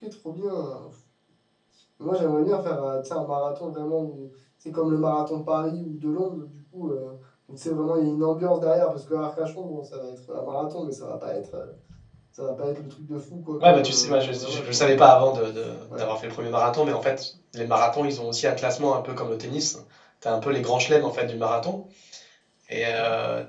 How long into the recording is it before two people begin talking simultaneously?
13.6 s

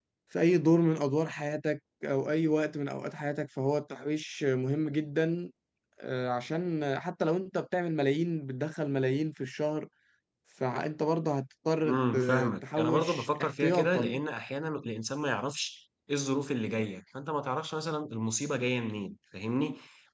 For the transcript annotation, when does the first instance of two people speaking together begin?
11.8 s

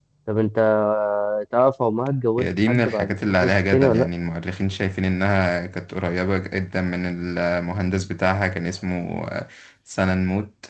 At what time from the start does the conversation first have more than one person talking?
2.4 s

